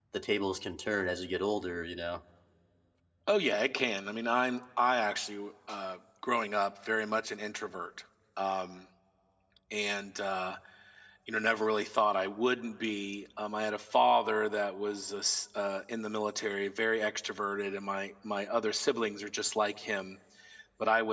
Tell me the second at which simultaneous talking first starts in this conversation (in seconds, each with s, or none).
none